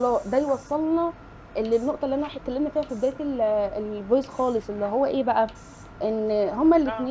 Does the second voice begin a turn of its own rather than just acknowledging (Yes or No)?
No